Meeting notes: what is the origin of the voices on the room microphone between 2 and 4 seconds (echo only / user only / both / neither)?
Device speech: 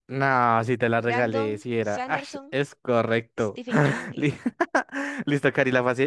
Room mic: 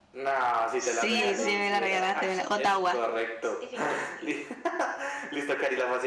both